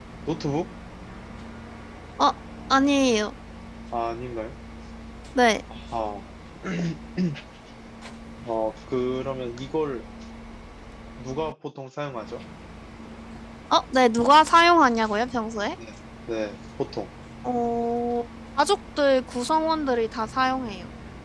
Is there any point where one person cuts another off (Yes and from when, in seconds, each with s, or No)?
No